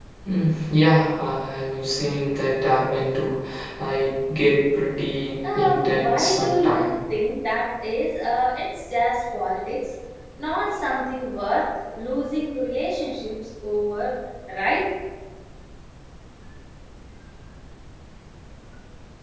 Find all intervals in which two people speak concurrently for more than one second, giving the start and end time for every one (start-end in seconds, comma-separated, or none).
5.5-6.9